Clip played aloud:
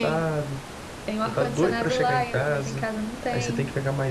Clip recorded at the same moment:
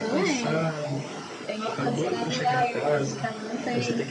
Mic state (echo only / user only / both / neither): echo only